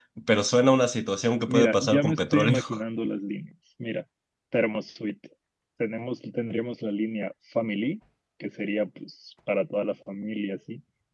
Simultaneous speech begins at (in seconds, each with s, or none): 1.5 s